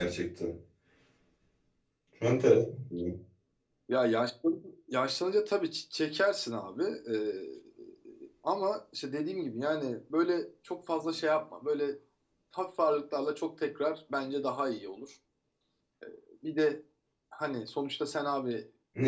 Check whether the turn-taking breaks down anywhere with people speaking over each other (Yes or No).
No